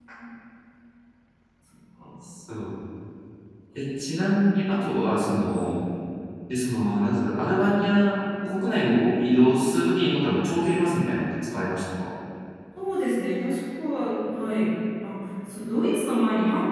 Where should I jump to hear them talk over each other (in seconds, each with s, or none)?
none